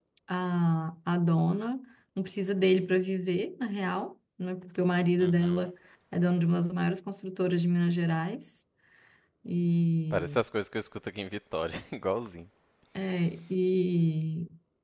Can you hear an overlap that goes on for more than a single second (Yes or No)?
No